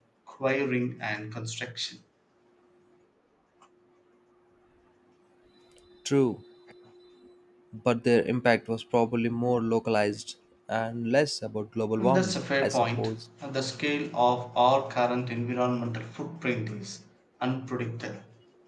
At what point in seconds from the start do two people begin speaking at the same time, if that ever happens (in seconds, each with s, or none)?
12.0 s